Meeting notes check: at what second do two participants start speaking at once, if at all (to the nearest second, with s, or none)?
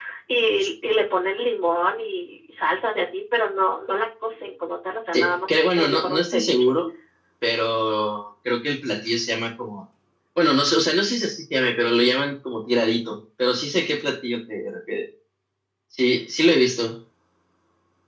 5 s